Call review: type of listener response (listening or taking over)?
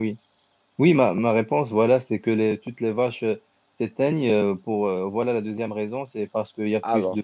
listening